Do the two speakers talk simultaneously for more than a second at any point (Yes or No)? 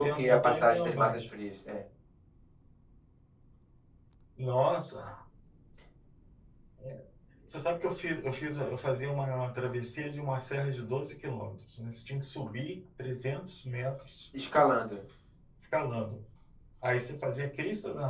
Yes